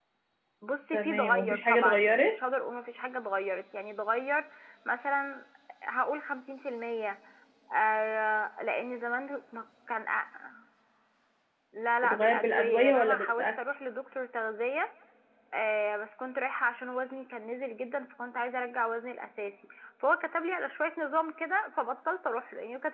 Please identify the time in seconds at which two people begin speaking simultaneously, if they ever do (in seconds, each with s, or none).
0.9 s